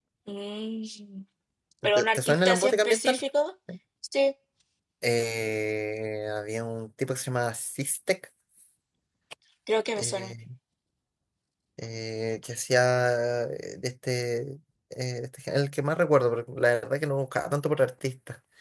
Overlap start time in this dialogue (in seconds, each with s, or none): 1.9 s